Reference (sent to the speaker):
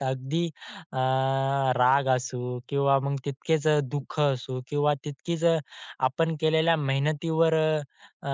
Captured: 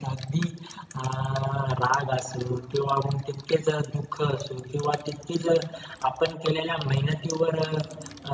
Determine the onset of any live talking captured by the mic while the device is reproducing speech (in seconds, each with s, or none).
none